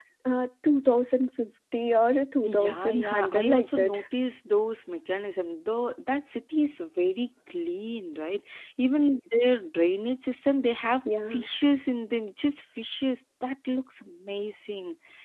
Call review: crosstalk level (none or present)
present